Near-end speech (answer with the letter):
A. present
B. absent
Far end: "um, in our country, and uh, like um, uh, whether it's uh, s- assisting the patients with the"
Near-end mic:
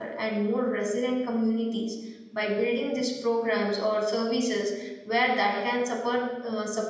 A